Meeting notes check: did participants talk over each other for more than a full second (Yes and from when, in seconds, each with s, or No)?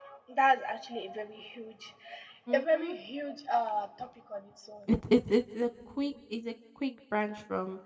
No